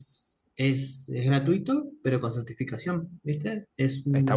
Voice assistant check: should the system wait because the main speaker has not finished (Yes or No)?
No